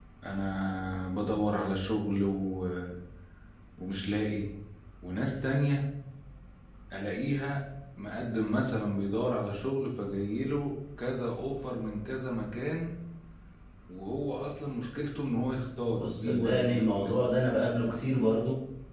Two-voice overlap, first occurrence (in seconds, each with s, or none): 15.9 s